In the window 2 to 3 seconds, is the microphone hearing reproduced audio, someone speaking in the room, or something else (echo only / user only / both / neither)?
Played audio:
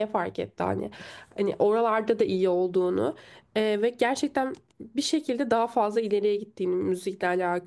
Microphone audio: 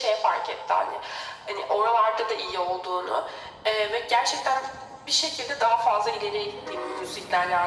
echo only